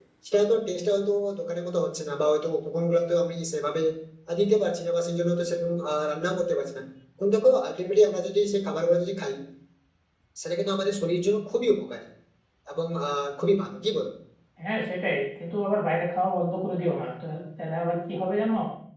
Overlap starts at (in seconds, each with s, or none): none